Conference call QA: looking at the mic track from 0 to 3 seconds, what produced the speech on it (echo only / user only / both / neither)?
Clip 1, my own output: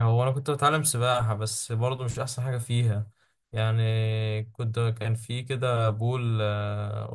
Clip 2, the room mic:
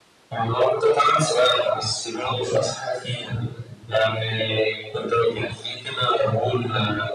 echo only